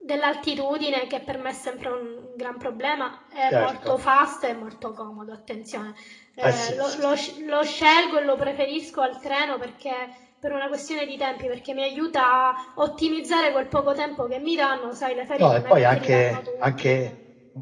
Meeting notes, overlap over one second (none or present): present